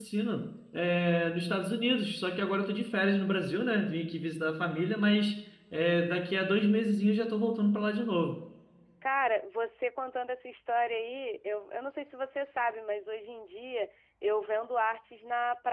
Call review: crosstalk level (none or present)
none